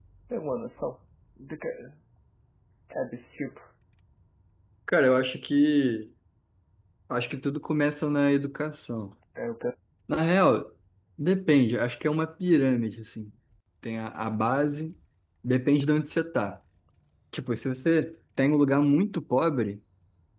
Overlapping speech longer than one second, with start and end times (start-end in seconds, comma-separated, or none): none